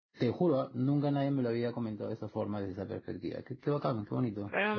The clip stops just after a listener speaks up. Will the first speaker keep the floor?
No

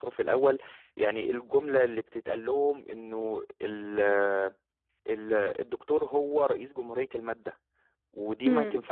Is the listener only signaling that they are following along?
Yes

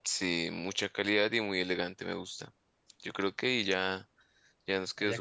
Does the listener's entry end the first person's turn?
Yes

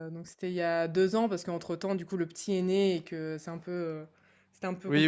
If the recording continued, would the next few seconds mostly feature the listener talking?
No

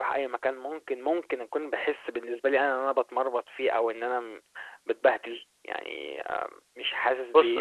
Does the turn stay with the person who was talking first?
No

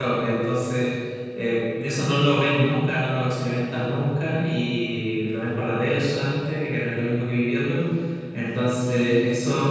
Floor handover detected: No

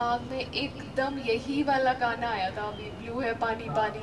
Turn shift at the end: No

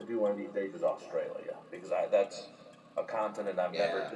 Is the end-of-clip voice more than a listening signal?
No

